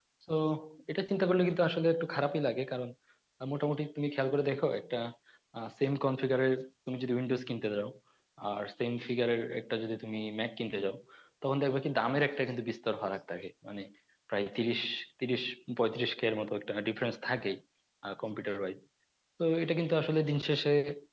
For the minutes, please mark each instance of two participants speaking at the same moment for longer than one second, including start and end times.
none

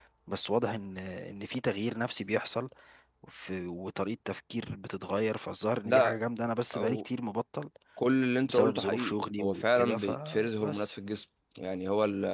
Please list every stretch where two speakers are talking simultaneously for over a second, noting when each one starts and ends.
8.4-10.9

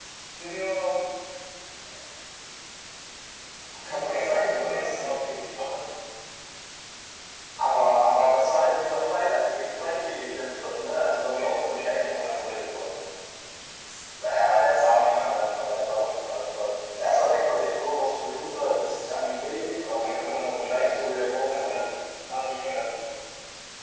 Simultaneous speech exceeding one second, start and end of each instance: 3.8-5.3, 11.3-12.7, 20.0-21.9

